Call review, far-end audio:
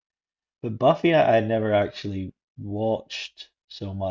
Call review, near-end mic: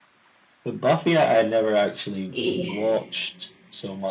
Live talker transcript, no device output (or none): y-